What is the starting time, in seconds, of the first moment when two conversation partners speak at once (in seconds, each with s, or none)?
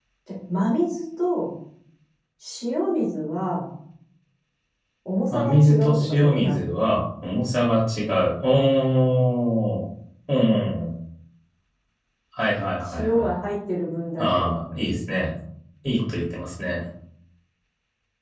5.3 s